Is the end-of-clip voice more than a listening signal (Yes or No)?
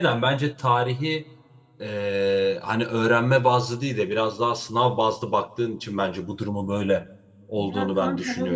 Yes